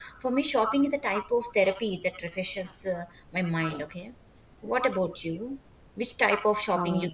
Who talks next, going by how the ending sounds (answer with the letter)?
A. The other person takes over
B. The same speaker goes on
B